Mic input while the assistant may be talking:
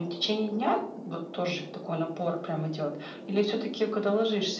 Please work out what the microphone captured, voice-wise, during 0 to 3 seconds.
echo only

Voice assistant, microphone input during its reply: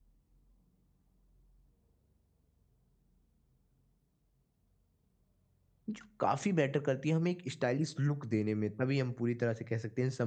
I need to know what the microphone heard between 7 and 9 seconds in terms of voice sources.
user only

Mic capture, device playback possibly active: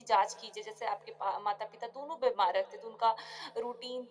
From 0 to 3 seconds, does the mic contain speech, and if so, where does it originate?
echo only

